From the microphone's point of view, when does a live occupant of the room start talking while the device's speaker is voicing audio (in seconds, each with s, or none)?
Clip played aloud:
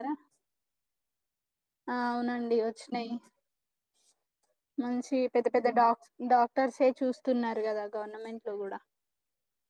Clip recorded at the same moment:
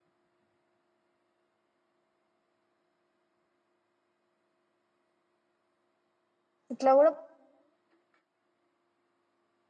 6.7 s